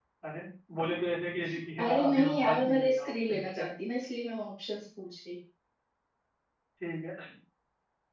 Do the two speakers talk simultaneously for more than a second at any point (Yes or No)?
Yes